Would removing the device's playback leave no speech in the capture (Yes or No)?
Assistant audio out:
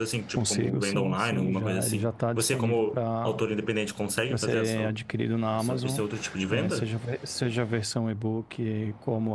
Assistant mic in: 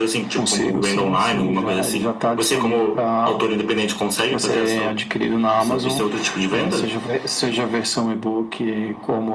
Yes